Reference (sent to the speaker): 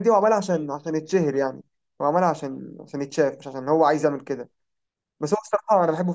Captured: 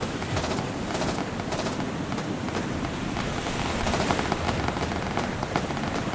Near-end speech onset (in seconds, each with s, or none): none